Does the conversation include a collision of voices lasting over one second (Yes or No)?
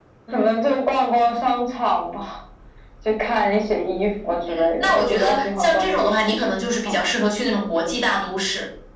Yes